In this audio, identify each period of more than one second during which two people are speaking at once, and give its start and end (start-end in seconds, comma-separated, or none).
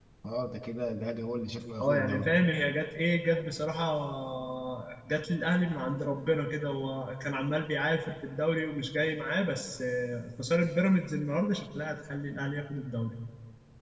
none